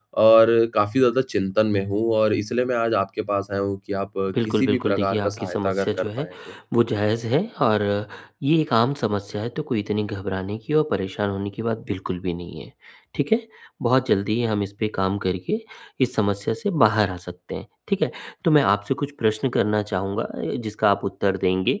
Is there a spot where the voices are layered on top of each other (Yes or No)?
Yes